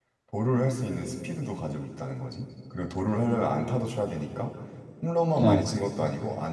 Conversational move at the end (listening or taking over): listening